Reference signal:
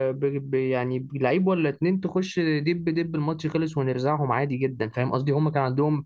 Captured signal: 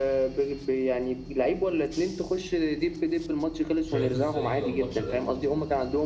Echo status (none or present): present